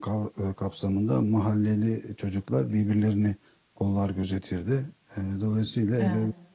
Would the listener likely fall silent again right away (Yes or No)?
Yes